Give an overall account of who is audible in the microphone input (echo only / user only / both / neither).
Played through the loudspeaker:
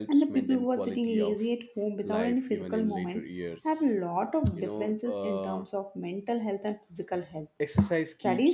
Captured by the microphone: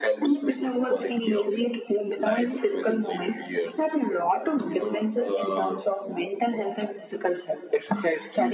echo only